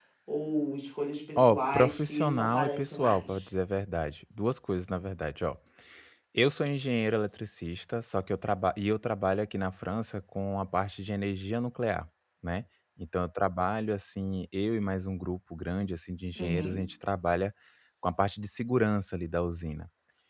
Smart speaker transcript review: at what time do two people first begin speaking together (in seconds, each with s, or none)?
1.4 s